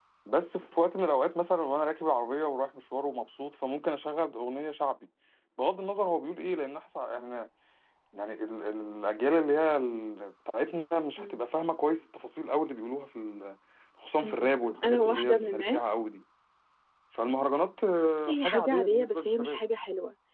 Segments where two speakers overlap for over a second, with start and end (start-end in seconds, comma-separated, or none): 14.2-16.0, 18.3-19.6